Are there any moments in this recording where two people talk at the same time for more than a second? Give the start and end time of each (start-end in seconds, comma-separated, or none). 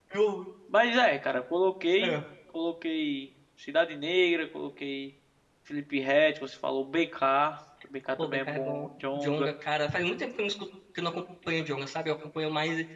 8.2-9.5